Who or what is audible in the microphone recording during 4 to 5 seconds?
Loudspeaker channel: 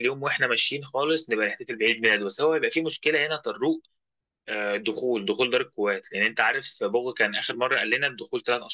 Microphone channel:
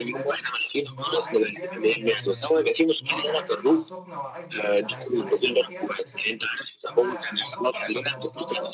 both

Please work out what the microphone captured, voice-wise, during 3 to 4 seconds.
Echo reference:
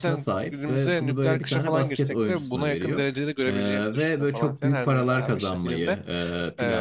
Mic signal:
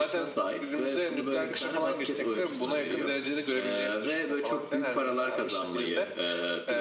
echo only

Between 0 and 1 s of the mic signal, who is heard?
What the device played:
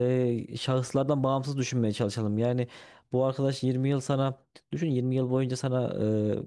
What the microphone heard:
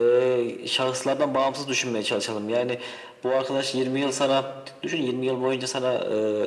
echo only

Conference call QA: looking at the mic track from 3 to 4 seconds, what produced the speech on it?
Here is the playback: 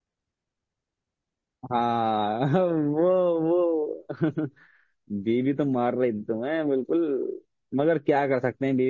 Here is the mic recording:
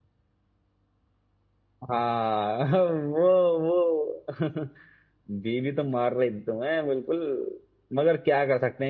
echo only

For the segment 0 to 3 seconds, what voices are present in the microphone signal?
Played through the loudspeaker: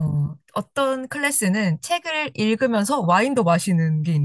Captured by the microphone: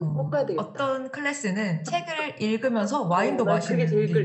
both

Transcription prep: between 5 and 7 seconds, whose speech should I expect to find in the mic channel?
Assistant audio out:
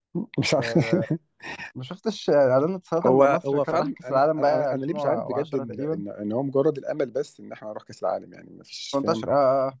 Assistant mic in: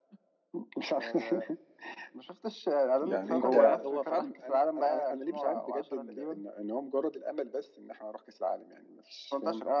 echo only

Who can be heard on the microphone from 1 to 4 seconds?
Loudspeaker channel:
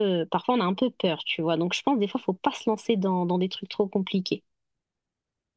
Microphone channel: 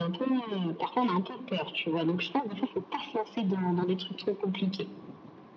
echo only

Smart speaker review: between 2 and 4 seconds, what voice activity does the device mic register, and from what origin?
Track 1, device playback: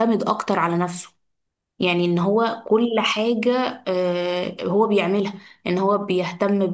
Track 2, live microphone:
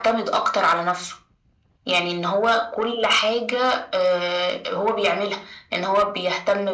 echo only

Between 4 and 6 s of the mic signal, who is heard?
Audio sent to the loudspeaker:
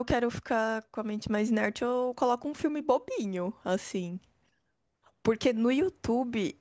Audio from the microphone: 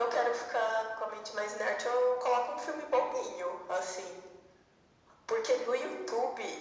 echo only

